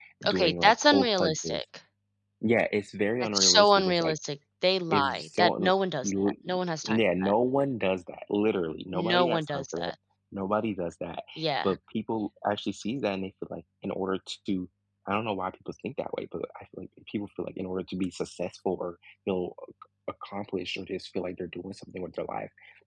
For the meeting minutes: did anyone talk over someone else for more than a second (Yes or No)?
Yes